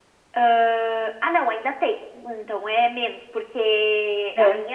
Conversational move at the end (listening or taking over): listening